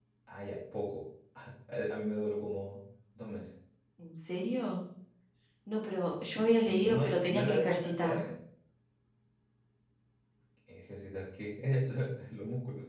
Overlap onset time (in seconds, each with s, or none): 6.4 s